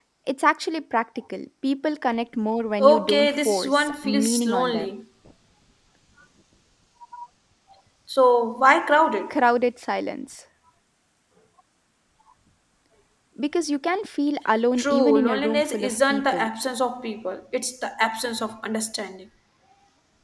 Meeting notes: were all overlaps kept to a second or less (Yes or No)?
No